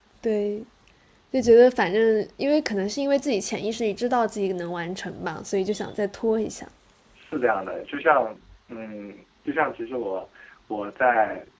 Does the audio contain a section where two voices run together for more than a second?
No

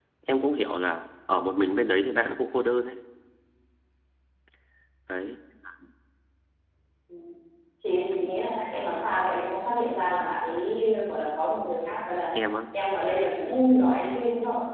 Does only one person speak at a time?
Yes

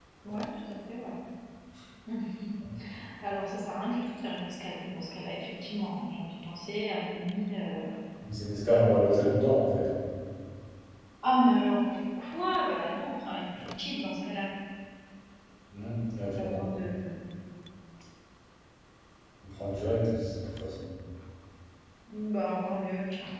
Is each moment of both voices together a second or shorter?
Yes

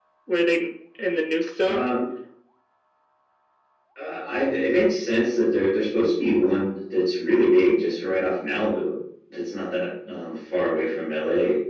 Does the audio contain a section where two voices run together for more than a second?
No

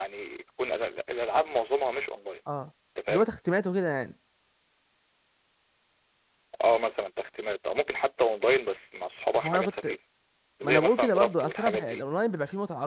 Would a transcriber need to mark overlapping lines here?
Yes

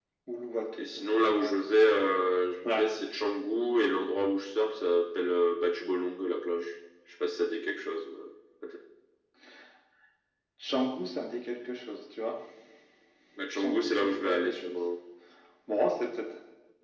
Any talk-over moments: Yes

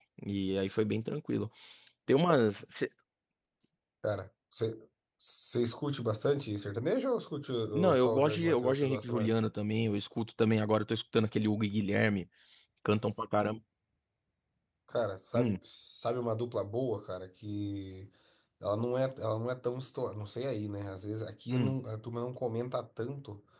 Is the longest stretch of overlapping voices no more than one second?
No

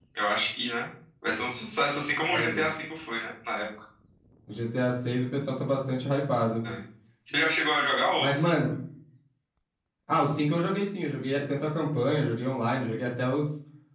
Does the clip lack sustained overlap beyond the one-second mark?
Yes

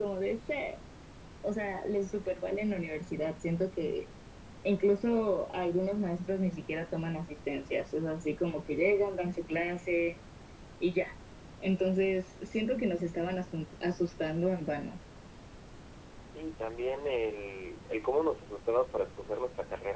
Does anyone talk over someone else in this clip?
No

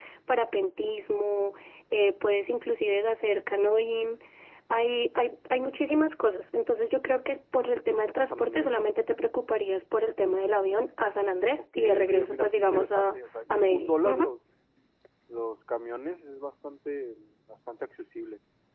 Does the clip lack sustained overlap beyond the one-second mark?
No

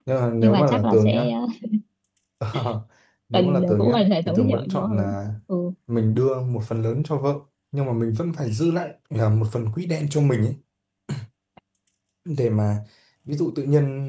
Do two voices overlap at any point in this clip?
Yes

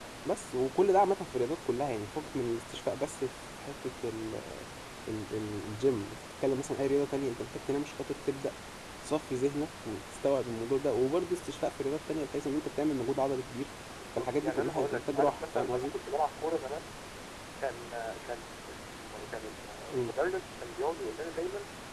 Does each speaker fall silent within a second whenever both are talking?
No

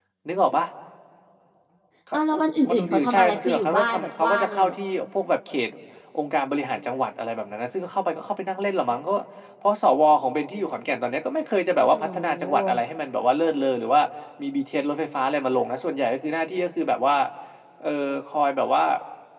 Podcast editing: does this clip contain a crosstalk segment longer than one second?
Yes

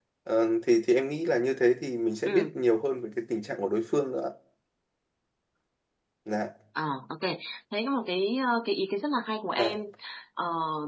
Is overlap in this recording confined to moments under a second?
Yes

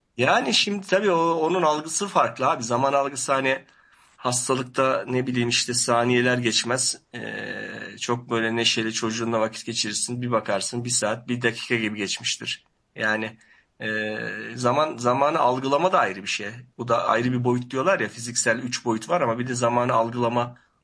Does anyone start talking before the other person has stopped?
No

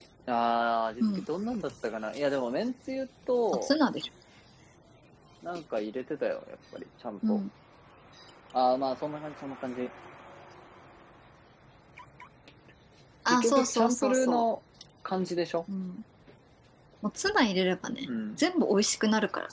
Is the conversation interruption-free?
No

